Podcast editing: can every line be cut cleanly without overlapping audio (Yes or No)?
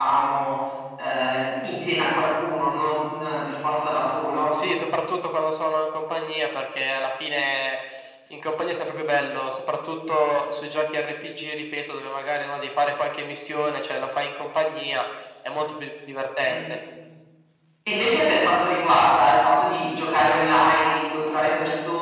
Yes